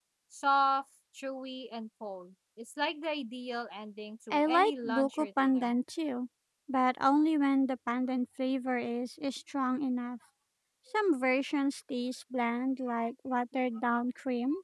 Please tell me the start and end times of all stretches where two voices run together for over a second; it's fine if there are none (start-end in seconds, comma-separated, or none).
4.3-5.7